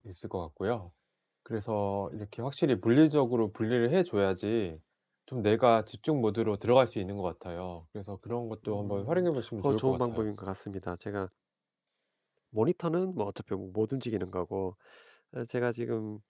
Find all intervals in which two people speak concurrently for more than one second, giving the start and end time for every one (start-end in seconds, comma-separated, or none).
8.7-10.3